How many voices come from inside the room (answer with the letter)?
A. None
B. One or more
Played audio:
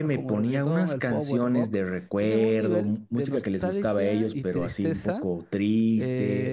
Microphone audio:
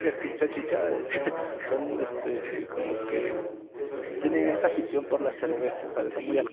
B